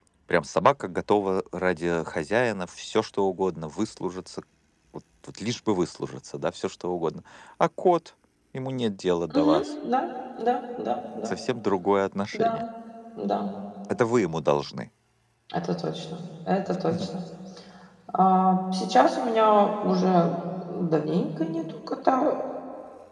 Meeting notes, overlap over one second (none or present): none